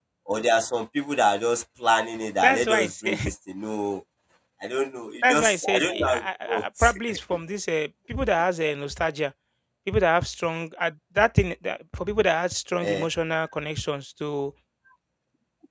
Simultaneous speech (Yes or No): Yes